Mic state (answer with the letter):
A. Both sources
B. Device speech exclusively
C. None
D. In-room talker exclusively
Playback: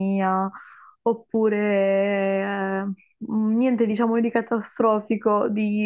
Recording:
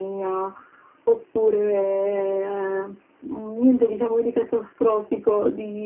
B